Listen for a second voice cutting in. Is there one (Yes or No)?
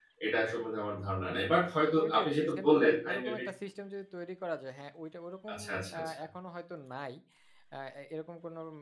Yes